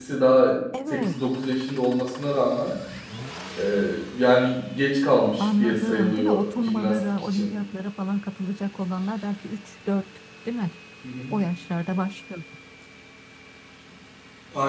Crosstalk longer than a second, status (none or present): present